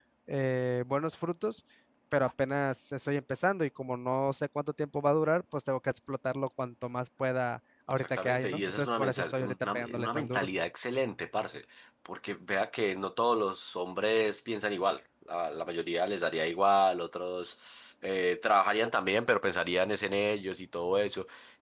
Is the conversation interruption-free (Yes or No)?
No